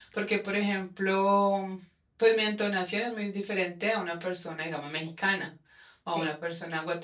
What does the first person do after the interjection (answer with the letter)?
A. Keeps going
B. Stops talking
A